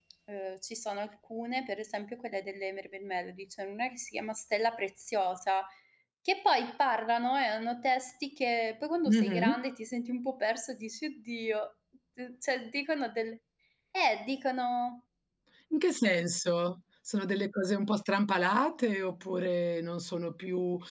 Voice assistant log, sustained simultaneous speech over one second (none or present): none